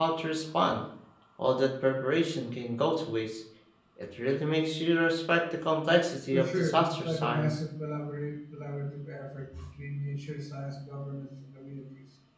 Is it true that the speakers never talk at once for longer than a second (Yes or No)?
No